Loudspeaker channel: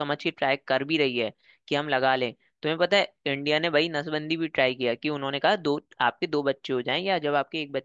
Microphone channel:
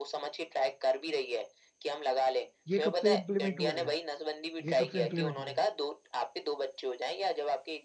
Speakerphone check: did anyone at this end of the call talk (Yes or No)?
Yes